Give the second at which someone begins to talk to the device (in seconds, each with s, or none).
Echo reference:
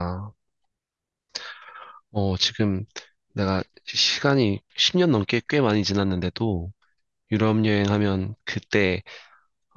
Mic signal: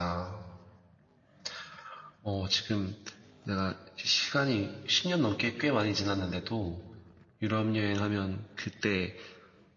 none